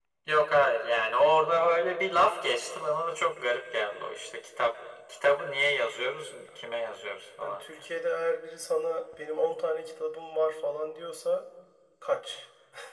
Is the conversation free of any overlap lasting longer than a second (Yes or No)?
Yes